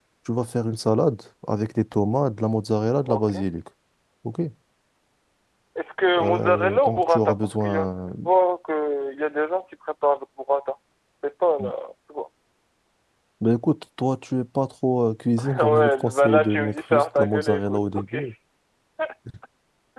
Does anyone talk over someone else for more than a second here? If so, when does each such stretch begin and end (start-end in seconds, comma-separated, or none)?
6.2-8.1, 15.4-18.1